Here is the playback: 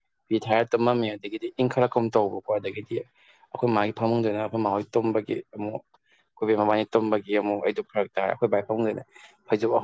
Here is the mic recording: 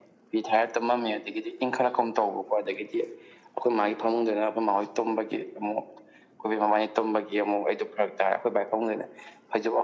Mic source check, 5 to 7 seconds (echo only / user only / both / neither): echo only